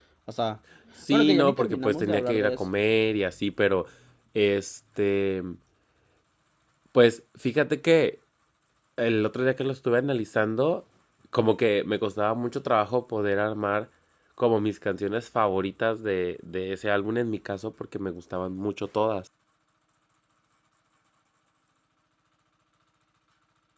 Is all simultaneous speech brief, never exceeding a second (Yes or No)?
No